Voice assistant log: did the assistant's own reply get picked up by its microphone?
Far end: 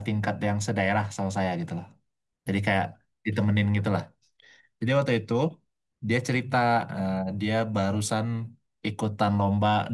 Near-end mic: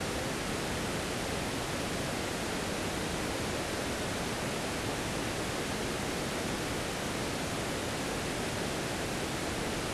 No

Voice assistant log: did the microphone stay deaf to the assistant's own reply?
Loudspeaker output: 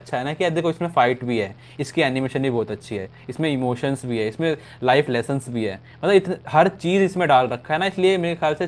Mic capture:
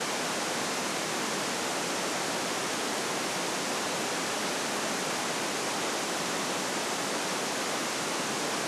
Yes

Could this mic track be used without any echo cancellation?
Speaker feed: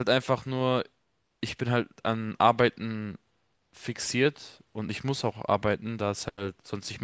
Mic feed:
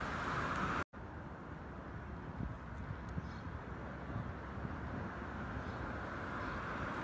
Yes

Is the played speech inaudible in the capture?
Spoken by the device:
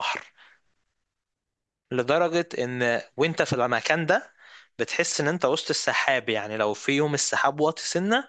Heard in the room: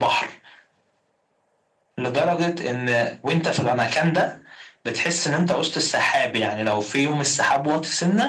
No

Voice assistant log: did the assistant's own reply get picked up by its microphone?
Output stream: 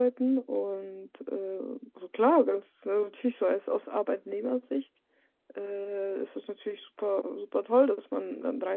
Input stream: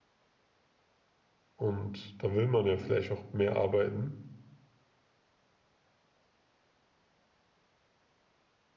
No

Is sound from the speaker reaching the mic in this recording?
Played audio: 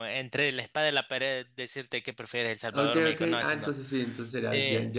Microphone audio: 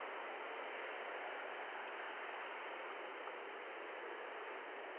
No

